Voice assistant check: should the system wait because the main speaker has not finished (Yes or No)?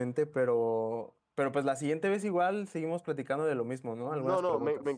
No